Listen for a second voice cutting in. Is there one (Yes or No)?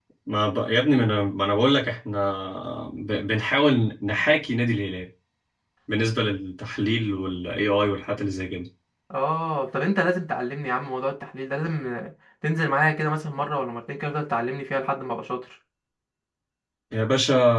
No